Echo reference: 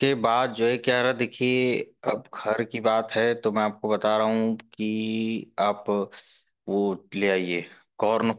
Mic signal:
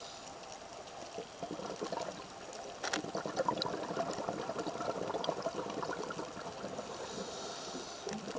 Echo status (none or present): none